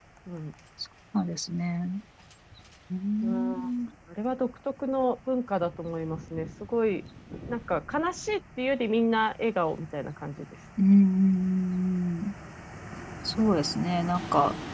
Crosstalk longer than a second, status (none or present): none